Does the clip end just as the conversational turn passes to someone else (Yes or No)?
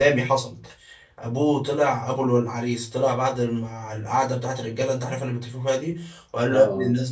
No